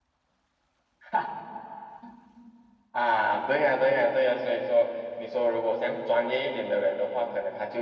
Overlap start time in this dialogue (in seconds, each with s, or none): none